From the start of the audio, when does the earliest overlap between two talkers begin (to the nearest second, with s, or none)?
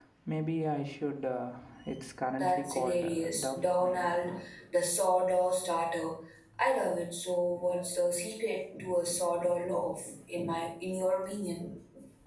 2 s